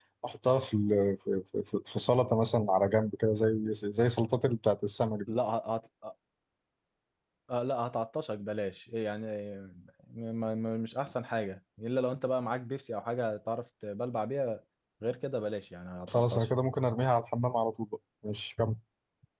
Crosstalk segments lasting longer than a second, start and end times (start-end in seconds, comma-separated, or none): none